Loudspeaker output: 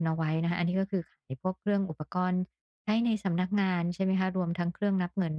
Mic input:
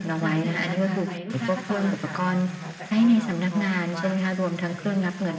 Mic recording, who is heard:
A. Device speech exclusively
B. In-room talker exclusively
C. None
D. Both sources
D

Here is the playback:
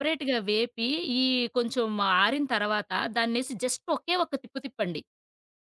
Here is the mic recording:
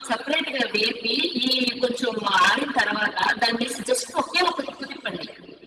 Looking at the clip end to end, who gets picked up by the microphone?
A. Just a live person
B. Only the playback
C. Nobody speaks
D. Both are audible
B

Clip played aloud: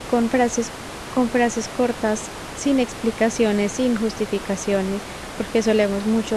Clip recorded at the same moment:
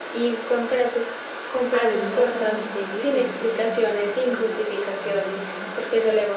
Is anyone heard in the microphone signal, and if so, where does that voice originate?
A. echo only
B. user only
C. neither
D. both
D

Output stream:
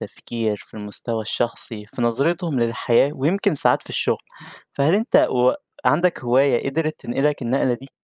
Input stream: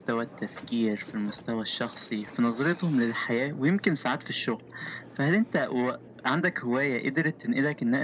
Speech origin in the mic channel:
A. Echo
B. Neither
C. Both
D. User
A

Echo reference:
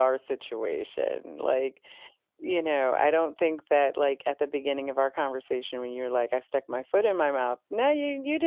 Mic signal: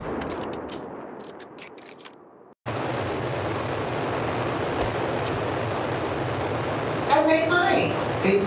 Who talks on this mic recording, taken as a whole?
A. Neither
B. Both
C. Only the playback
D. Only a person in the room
D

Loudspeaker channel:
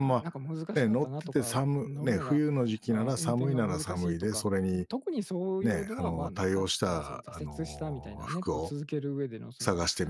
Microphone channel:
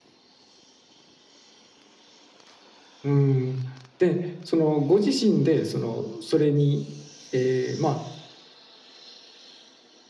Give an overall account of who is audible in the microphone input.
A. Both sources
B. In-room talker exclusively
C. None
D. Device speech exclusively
B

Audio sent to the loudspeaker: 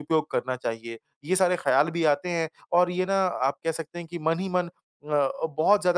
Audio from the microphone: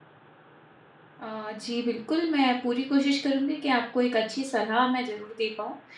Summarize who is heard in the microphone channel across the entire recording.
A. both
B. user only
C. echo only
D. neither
B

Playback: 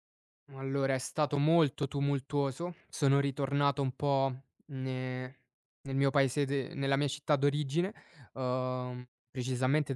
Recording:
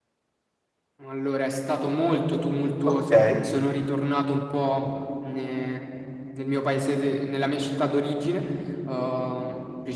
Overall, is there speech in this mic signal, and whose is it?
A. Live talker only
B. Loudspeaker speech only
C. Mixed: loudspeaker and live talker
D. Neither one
C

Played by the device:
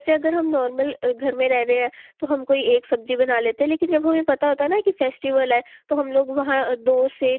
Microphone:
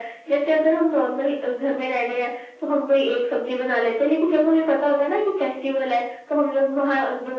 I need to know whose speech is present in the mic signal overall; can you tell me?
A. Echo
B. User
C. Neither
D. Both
A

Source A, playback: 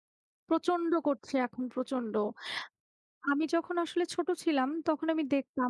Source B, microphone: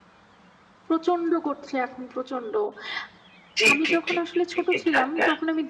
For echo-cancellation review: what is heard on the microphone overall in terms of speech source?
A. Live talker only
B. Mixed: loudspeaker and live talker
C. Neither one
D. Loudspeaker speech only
B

